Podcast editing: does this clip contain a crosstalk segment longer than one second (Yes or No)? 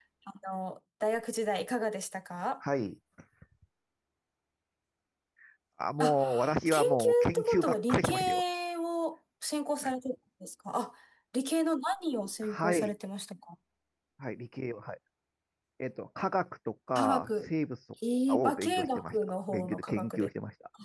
Yes